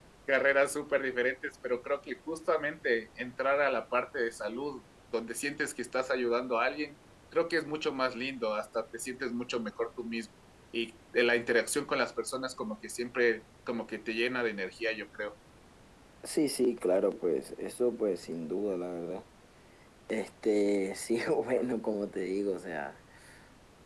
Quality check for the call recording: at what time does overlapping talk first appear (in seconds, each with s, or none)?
none